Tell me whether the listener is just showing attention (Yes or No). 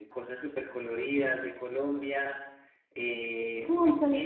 No